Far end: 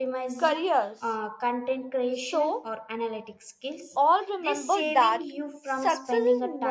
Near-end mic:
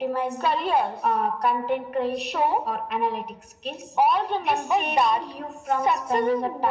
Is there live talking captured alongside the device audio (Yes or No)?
No